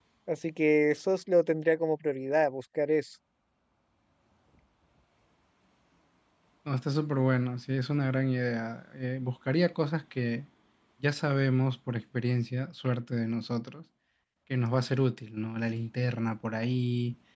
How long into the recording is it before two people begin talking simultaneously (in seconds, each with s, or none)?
none